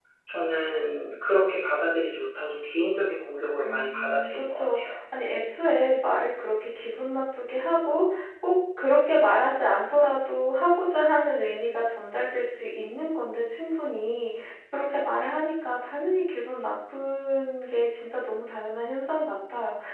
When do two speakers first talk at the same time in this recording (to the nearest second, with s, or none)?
4 s